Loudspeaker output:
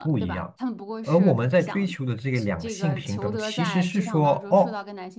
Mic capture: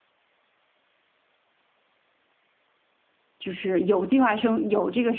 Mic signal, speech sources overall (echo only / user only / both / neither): user only